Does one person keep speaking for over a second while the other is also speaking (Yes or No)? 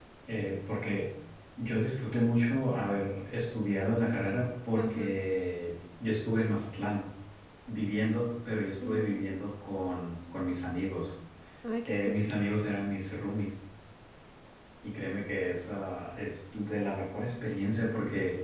No